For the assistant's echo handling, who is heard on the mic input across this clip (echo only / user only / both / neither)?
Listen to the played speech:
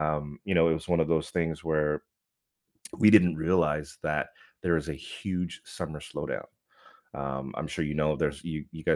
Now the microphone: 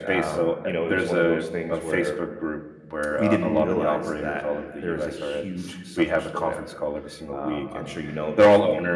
both